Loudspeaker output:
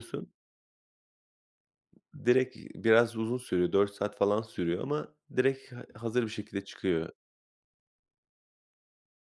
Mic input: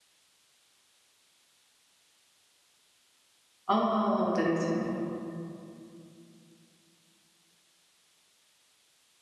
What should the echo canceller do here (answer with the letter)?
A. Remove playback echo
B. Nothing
B